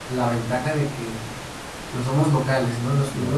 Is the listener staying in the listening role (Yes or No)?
Yes